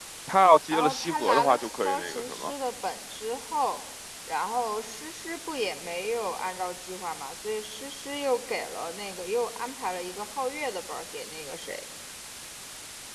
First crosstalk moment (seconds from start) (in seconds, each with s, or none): 0.7 s